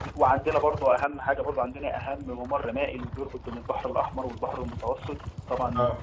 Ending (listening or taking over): listening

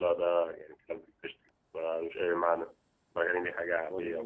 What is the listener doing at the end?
taking over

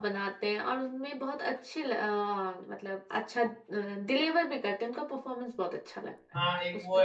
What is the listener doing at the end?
taking over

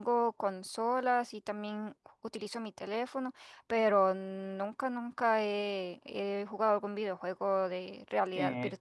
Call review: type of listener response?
taking over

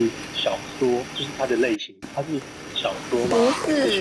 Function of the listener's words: taking over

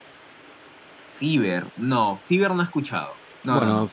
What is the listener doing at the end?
taking over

